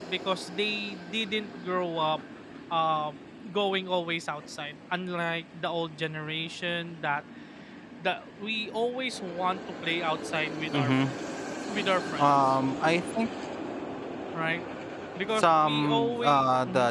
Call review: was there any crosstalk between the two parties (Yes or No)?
Yes